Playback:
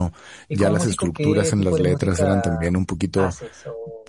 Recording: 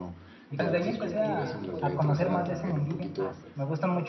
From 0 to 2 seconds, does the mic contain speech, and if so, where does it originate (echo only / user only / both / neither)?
both